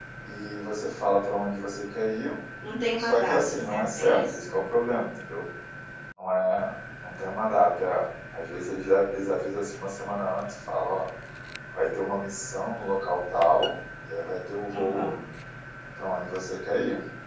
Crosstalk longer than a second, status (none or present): present